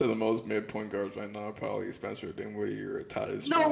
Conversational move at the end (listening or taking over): taking over